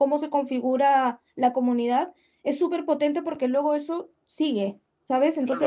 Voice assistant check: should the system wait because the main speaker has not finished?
No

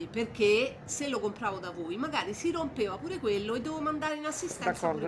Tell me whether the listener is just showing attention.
No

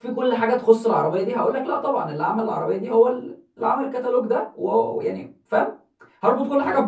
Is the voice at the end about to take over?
No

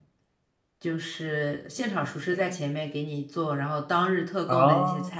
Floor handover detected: No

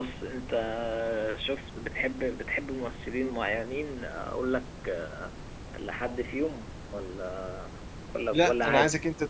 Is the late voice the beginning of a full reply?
Yes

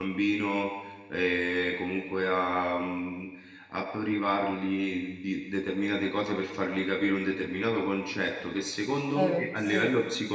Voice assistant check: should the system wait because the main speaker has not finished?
Yes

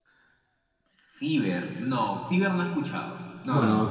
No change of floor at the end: No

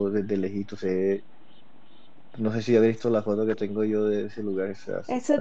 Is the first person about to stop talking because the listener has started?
Yes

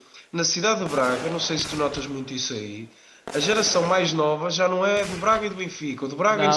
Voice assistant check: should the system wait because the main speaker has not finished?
No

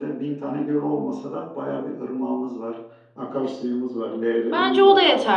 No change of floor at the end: No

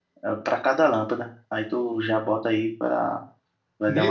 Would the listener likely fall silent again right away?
No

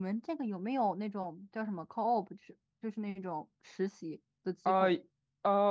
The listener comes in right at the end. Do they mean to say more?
Yes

